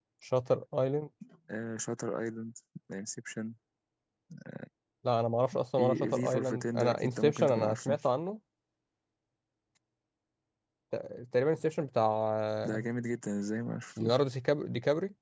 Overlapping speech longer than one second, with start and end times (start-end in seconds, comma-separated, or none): 5.8-7.9